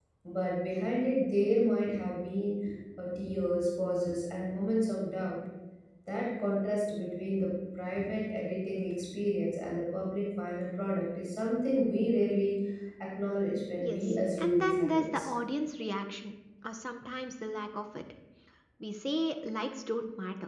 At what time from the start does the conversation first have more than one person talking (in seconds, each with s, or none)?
13.8 s